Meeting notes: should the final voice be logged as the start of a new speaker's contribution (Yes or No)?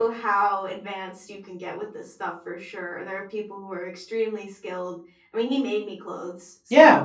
Yes